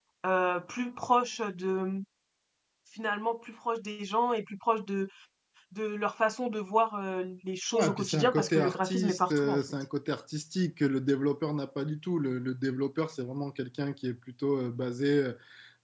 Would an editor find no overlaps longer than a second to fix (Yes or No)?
No